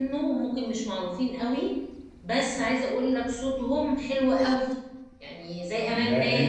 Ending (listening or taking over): taking over